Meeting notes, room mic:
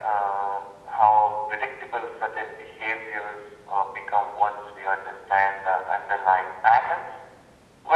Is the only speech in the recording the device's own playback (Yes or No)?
Yes